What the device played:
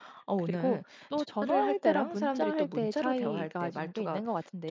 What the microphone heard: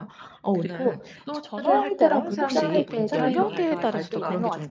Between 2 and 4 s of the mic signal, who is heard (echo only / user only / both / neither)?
both